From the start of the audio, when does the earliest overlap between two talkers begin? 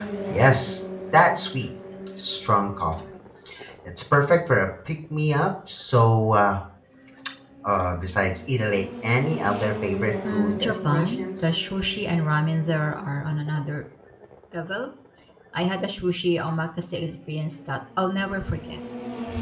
10.2 s

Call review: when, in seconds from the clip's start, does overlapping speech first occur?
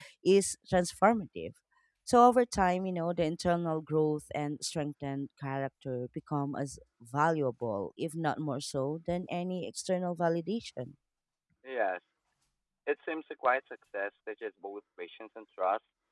none

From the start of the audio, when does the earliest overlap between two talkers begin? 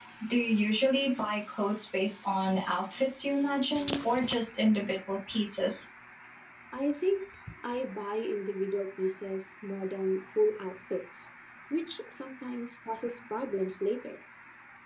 none

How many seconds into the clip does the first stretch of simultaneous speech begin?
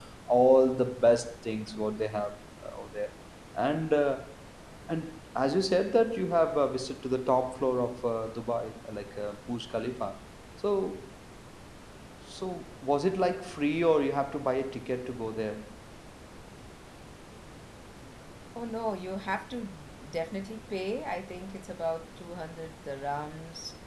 none

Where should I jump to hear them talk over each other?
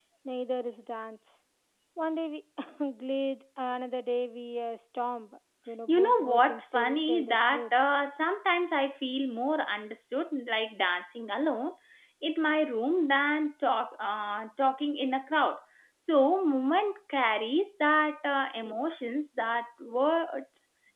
5.9 s

